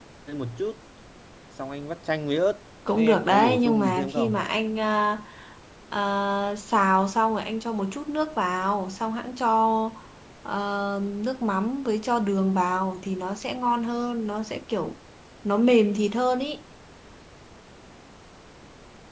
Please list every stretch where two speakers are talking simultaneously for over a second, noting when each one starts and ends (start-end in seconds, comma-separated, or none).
3.0-4.3